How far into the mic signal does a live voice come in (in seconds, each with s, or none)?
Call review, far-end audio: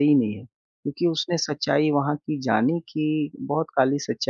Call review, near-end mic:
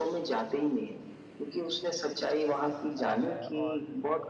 3.0 s